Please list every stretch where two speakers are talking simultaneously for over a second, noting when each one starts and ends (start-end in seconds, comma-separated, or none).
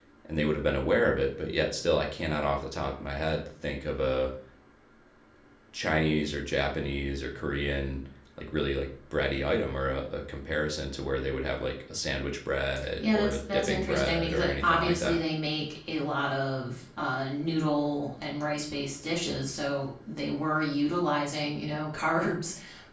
13.0-15.2